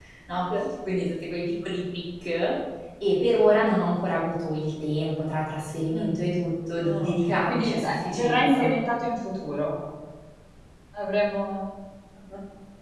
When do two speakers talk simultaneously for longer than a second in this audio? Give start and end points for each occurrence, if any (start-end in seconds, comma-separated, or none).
6.8-8.7